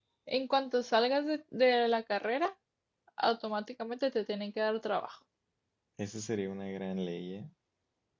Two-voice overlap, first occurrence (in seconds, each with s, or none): none